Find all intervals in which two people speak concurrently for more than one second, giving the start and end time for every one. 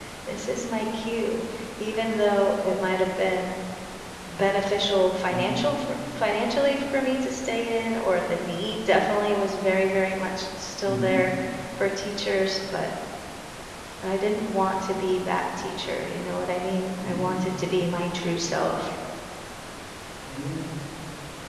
none

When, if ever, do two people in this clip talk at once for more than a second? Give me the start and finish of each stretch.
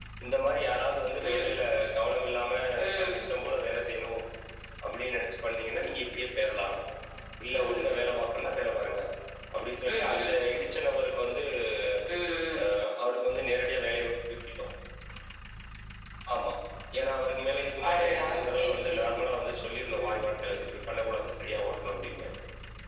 17.9-19.1

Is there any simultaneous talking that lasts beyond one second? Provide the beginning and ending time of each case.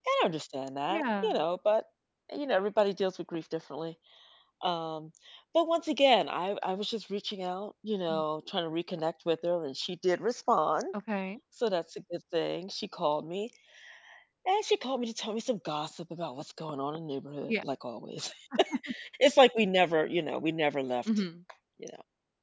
none

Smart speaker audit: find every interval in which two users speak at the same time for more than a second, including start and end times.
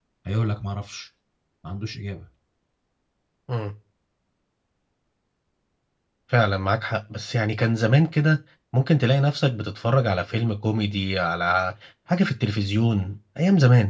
none

